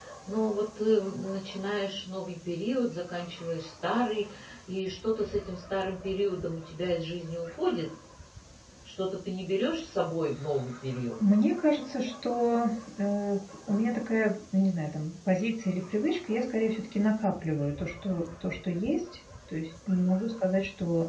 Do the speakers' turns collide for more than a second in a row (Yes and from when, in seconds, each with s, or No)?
No